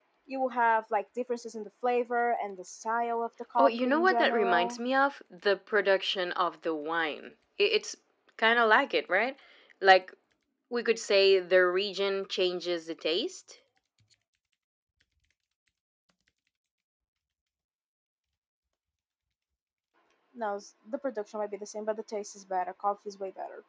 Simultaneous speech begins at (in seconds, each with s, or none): 3.6 s